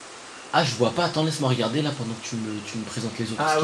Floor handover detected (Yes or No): Yes